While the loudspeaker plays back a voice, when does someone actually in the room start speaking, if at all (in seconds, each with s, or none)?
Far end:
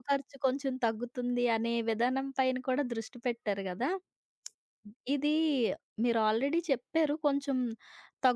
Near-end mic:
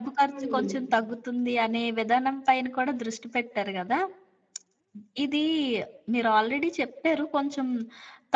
0.3 s